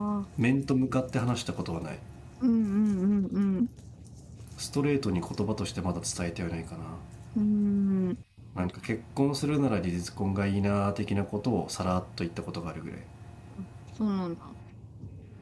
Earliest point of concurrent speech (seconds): none

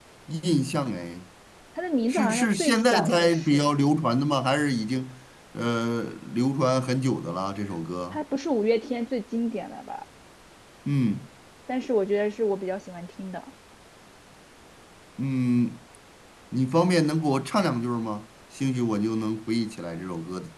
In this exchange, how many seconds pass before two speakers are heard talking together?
2 s

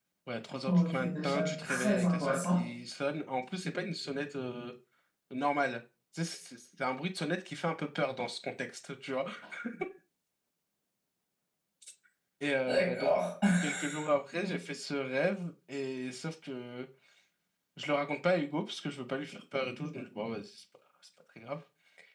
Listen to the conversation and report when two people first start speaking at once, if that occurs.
1 s

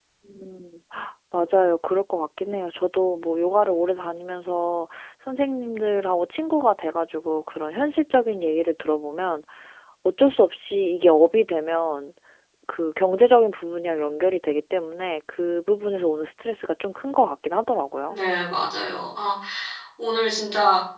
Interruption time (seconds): none

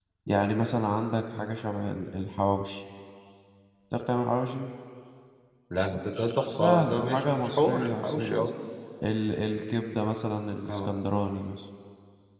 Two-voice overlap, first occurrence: 6 s

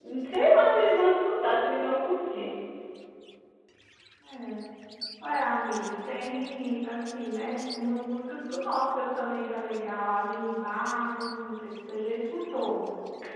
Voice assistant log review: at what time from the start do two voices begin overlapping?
none

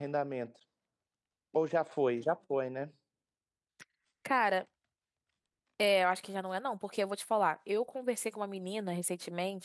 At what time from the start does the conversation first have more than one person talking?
none

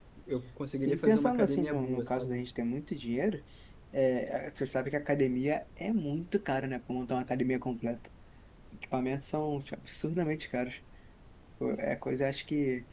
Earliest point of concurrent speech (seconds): 1 s

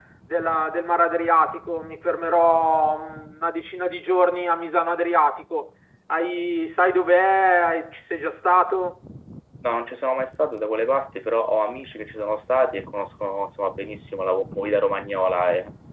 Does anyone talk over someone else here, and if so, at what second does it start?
none

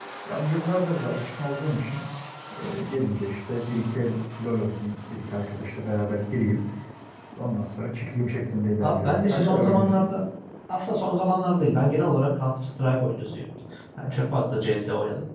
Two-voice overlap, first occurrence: 9 s

